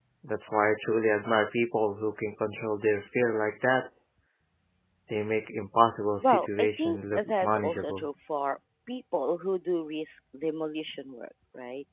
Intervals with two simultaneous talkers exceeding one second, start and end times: 6.2-8.1

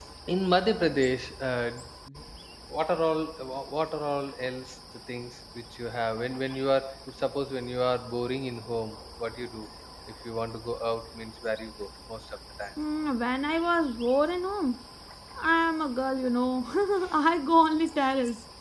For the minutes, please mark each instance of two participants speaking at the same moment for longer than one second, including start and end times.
none

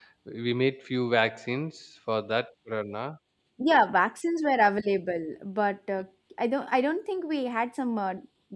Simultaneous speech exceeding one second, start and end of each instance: none

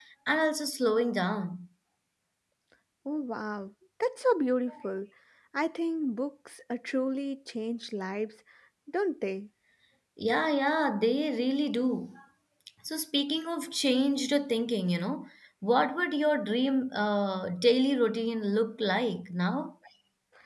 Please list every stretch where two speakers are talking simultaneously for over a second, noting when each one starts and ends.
none

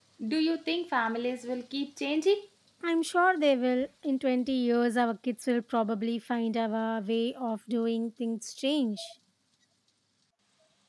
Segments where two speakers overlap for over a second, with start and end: none

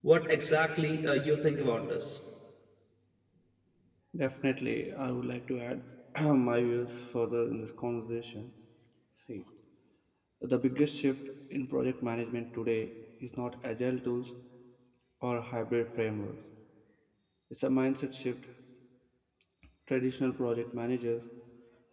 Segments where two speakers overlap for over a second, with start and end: none

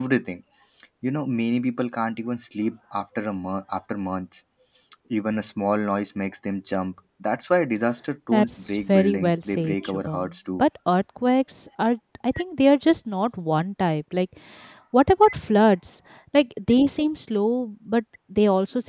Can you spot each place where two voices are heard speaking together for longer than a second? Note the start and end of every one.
8.3-10.6

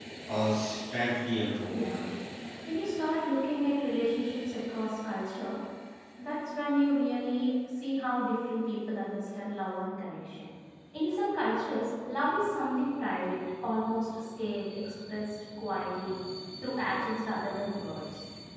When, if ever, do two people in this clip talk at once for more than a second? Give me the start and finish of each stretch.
none

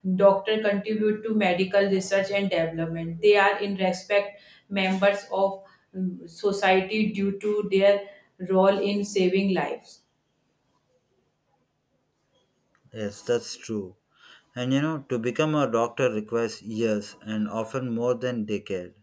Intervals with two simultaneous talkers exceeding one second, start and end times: none

